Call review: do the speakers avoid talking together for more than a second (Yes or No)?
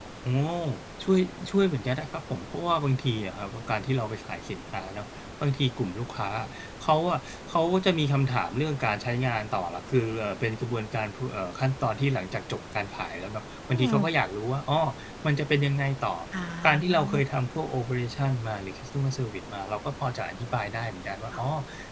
Yes